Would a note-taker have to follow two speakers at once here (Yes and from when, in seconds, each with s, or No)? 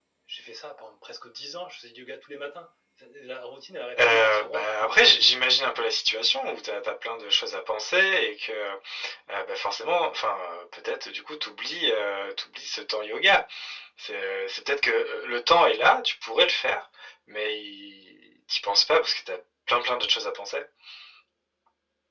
Yes, from 4.0 s